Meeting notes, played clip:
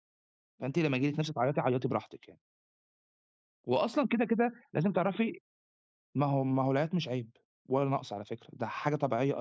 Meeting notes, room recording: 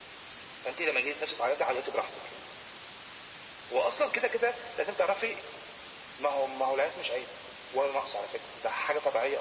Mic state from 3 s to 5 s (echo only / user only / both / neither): echo only